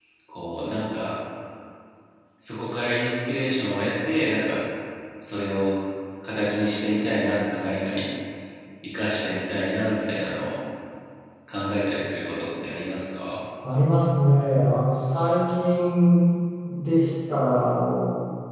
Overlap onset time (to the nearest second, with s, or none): none